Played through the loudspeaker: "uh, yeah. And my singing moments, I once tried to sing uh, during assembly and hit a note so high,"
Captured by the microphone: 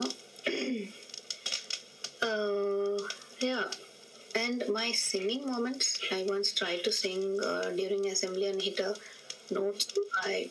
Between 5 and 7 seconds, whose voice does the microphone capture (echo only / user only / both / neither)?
echo only